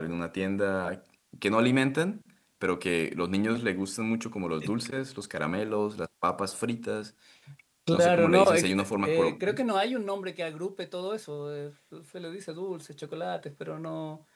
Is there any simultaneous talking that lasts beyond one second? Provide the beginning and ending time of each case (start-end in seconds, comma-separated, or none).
7.9-9.6